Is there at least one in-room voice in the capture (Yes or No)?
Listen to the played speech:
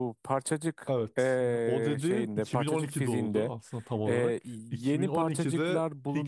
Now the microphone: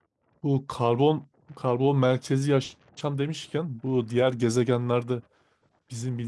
Yes